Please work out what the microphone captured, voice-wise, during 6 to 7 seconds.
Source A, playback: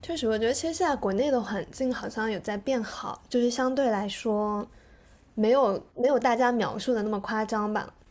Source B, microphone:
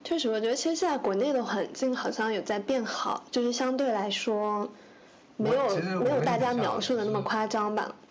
both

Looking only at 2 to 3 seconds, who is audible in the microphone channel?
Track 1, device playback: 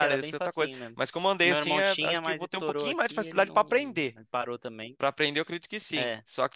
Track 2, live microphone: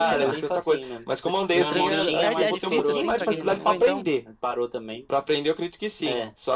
both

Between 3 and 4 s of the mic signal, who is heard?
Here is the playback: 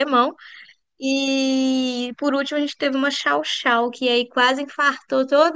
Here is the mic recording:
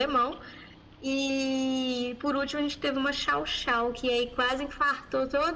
echo only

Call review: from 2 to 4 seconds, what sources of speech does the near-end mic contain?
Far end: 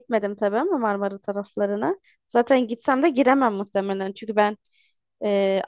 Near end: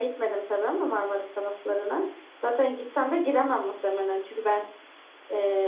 echo only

